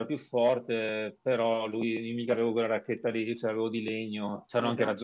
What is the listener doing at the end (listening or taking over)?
taking over